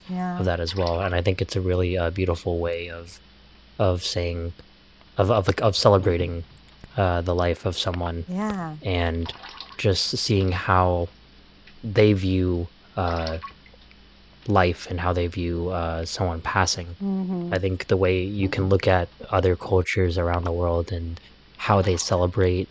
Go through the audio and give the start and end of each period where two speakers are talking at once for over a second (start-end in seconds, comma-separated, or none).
none